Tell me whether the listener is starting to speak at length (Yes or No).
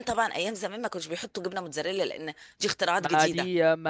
Yes